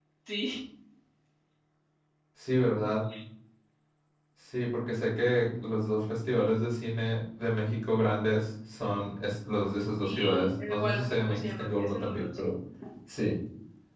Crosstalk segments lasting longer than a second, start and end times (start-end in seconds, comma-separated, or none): 10.0-12.5